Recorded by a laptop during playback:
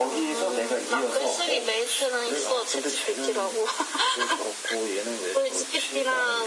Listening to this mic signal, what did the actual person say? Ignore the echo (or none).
none